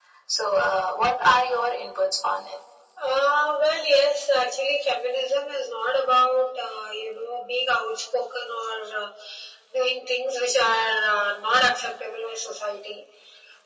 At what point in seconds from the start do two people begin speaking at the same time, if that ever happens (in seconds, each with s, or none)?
none